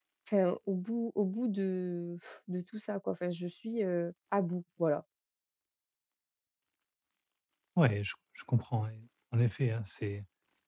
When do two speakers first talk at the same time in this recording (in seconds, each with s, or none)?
none